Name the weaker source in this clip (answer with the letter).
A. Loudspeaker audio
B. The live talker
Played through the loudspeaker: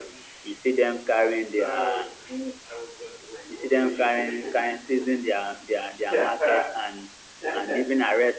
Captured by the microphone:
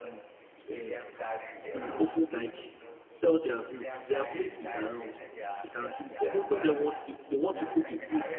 A